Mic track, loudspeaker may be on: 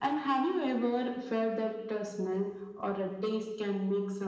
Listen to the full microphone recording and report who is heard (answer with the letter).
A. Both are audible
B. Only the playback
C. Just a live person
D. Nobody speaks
B